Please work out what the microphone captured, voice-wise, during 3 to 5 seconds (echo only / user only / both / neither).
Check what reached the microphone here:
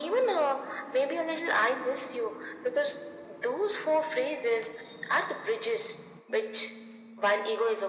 echo only